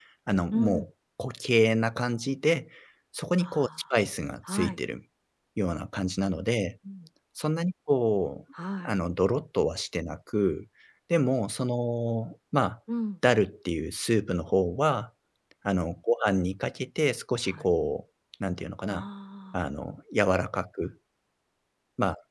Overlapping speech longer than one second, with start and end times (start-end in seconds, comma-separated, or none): none